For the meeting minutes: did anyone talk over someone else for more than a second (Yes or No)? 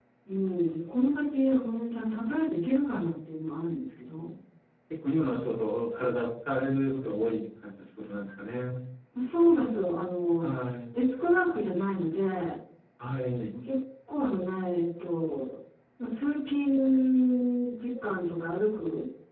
No